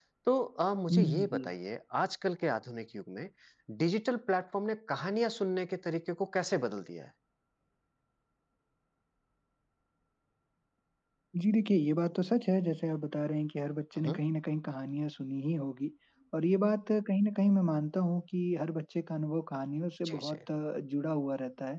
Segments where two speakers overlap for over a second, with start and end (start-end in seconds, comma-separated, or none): none